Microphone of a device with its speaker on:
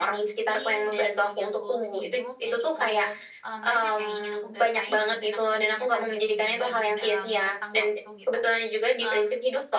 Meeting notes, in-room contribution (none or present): present